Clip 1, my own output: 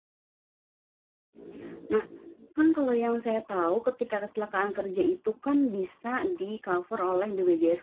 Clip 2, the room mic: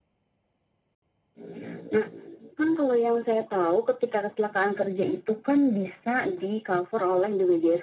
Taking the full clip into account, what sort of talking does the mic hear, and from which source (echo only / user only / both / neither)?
echo only